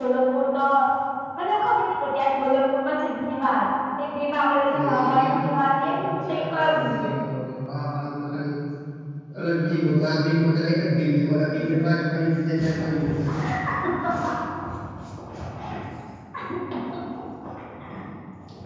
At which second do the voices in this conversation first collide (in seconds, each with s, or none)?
4.7 s